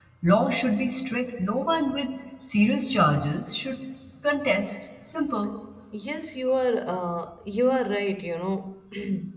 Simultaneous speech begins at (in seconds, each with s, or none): none